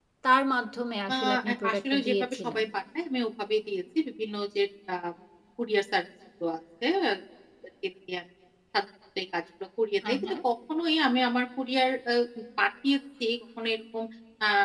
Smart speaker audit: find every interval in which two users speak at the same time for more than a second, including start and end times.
1.1-2.6

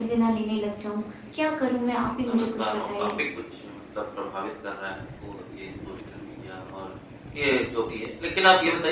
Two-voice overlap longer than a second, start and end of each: 1.8-3.1

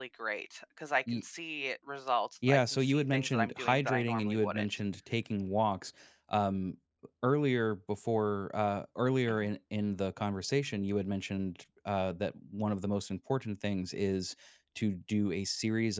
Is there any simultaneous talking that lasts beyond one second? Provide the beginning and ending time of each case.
2.5-4.7

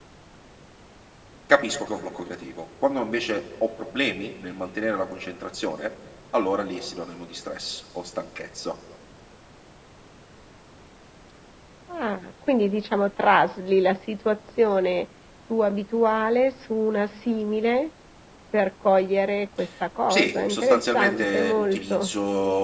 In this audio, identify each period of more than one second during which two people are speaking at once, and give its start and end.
20.1-22.1

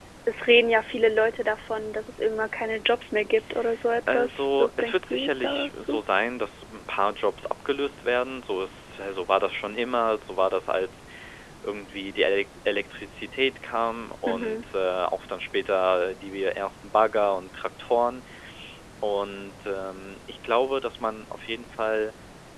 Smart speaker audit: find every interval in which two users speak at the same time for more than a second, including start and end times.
4.1-6.0

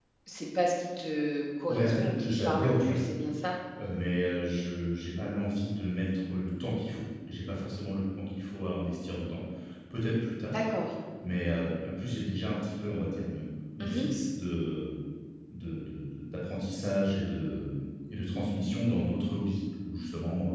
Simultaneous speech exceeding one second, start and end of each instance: 1.7-3.0

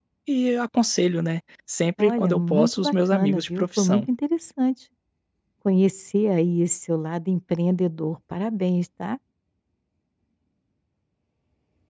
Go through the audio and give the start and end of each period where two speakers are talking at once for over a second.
2.0-4.0

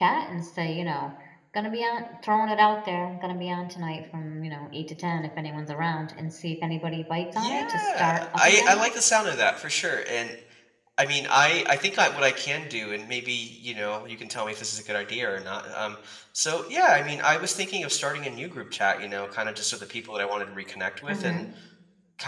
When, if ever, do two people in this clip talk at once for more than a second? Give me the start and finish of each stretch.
7.3-8.8

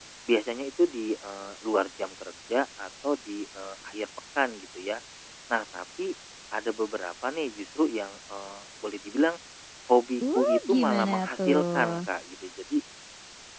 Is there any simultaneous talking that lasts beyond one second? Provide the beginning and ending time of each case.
10.2-12.1

